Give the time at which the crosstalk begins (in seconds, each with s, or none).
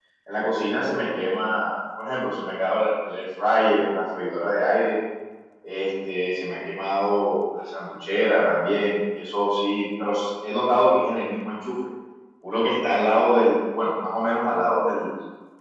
none